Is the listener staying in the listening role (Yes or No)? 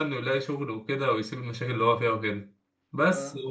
Yes